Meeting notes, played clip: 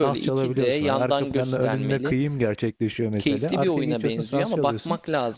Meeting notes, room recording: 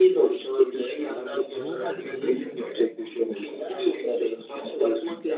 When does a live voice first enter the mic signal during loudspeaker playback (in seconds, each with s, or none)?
1.6 s